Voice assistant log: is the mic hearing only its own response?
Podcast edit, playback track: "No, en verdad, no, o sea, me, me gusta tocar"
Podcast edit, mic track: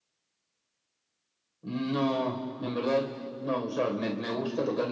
Yes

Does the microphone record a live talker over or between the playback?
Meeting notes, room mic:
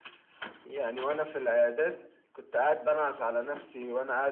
No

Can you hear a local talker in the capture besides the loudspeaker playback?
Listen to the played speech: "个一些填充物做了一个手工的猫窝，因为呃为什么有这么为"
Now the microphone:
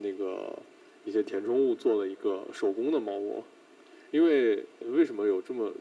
No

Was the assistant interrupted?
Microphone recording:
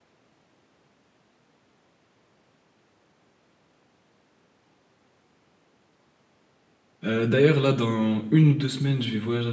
Yes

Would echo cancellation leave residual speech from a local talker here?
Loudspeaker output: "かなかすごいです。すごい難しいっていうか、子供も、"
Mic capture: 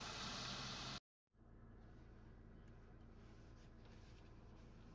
No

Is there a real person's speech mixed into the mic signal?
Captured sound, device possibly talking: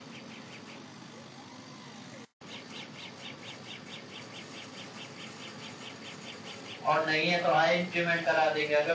Yes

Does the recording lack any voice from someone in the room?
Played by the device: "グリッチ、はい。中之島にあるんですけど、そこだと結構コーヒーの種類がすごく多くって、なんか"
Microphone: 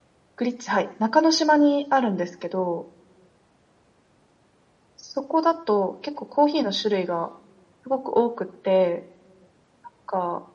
Yes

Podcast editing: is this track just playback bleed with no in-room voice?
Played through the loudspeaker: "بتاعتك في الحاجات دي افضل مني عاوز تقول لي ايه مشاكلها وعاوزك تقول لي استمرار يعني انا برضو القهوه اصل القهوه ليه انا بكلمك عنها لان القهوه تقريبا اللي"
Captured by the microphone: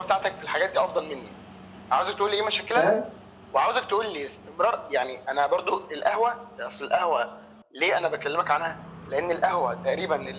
No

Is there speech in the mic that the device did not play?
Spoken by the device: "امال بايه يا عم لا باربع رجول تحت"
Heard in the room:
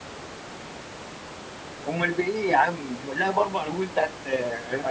No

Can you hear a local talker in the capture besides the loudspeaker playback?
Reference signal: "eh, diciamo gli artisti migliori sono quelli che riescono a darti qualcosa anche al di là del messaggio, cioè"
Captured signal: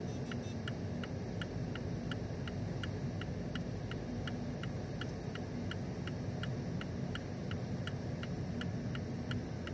No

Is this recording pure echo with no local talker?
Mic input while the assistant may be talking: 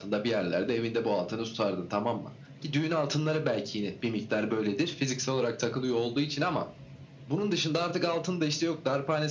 Yes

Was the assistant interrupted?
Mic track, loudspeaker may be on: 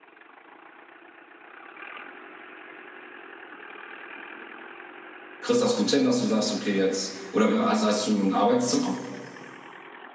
Yes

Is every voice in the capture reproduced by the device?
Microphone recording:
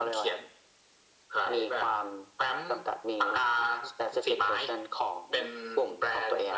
Yes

